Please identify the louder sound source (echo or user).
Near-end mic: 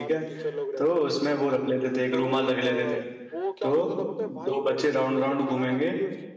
user